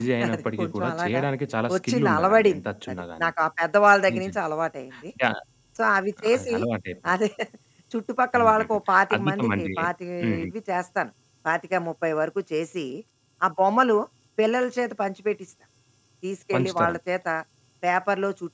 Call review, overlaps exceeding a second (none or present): present